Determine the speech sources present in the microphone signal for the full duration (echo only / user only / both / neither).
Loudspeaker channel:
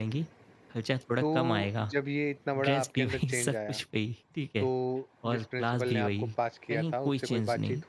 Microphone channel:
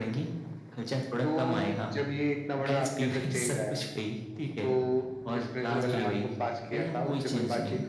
both